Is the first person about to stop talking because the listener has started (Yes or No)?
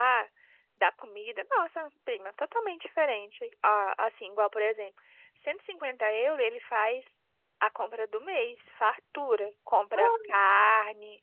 No